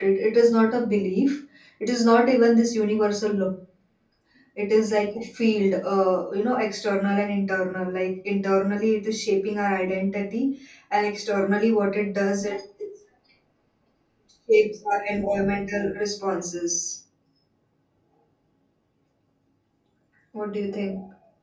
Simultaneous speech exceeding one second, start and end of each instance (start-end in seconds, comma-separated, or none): none